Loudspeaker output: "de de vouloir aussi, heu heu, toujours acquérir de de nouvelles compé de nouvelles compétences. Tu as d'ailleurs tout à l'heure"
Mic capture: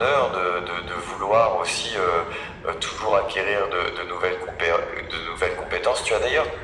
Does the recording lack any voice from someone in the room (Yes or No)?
Yes